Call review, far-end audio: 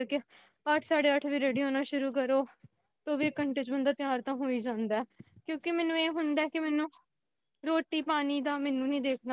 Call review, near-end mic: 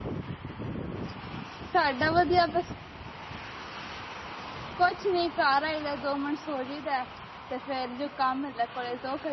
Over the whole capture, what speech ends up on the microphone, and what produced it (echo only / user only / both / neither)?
user only